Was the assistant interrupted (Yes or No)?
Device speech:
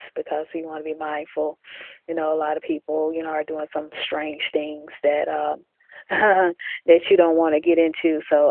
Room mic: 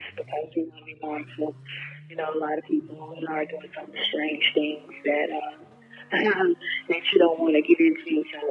No